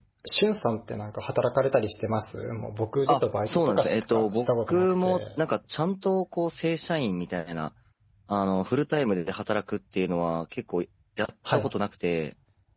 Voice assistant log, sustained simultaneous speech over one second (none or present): present